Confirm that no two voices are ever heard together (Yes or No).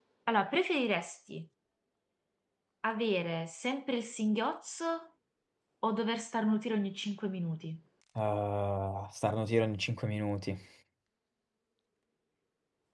Yes